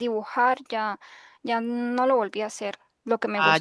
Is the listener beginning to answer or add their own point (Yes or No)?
No